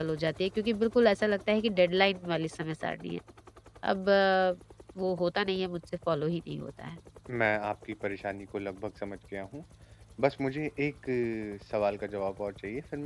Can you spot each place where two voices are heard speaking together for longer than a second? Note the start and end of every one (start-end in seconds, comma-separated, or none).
none